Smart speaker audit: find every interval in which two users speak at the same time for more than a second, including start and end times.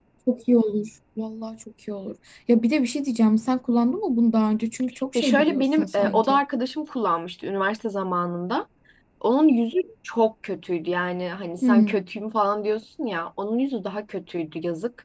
5.2-6.4

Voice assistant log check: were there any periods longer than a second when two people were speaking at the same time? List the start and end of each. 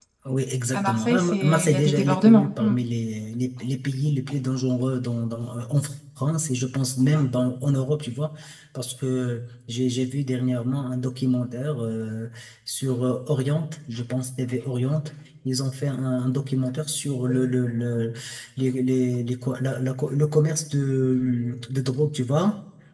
0.7-2.7

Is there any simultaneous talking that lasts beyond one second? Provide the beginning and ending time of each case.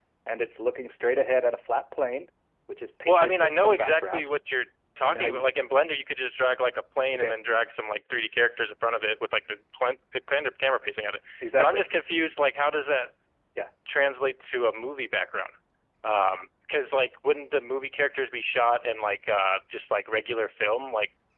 3.1-4.3

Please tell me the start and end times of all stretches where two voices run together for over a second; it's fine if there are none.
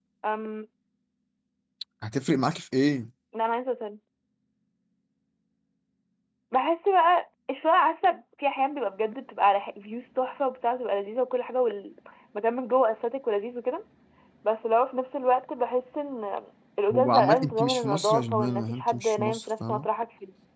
16.9-19.9

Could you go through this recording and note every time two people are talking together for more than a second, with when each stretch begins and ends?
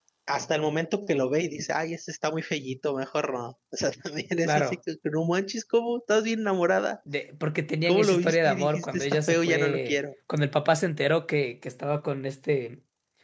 7.9-10.0

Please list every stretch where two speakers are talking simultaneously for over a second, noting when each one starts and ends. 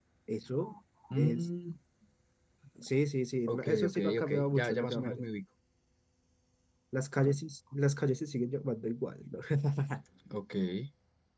3.5-5.2

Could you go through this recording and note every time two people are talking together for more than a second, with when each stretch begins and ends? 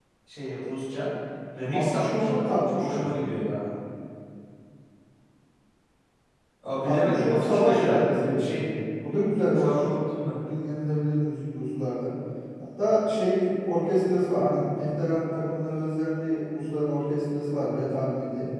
1.6-3.1, 6.8-8.6

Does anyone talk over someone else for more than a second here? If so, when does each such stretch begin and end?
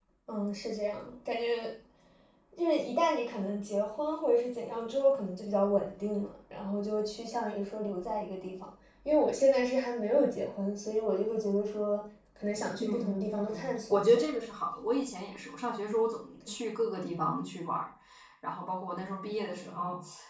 12.8-14.2

